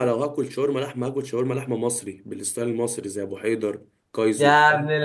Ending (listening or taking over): taking over